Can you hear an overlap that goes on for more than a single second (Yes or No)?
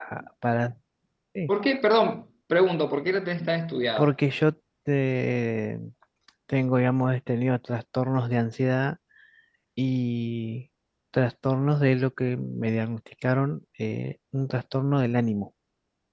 No